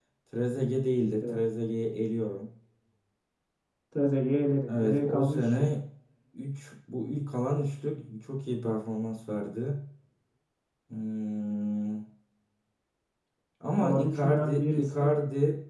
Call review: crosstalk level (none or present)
present